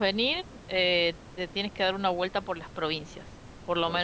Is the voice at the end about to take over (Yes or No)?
No